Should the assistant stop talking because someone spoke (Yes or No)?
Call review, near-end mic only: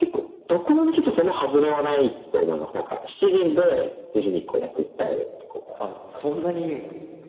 Yes